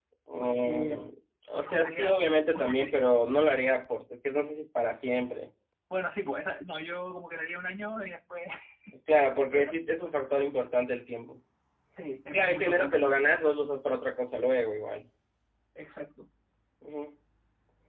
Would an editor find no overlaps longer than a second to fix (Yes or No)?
No